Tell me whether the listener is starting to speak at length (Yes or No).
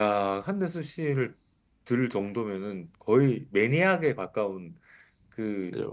Yes